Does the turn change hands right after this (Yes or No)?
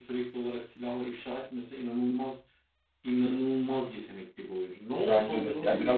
Yes